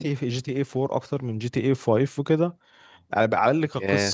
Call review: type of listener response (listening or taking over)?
listening